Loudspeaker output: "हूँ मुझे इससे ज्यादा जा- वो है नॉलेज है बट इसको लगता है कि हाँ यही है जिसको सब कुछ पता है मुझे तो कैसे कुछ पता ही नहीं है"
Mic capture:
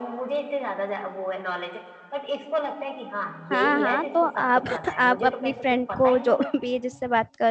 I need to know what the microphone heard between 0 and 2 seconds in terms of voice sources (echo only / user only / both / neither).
echo only